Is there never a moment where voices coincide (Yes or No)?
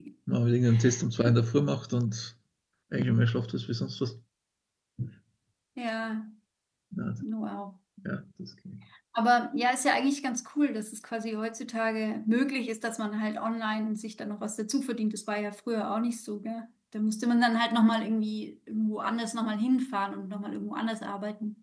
Yes